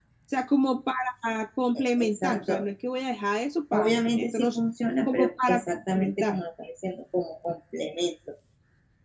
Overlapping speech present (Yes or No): Yes